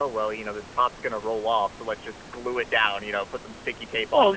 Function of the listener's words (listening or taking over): taking over